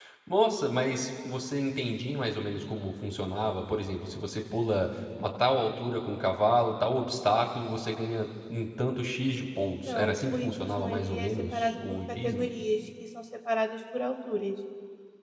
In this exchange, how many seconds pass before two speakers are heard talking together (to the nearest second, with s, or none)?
10 s